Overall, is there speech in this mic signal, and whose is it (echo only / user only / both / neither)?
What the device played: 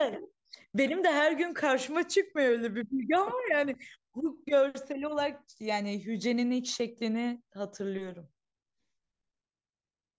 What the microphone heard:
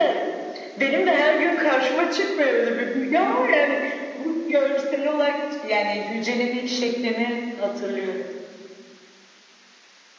echo only